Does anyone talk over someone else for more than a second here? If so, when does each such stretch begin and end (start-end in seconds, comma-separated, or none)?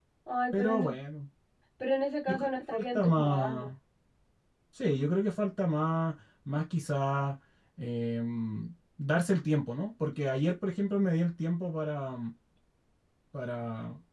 2.3-3.7